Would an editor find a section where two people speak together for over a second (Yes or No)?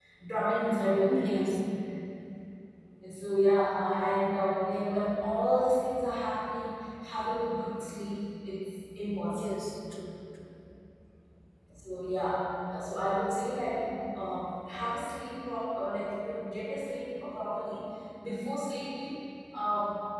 No